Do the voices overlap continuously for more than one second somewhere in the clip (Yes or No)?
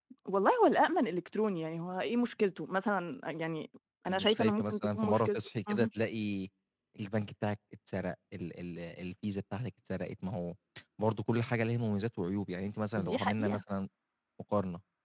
Yes